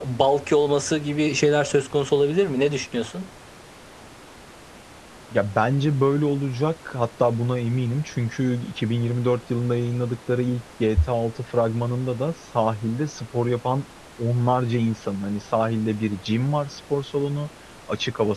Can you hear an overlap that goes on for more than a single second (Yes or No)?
No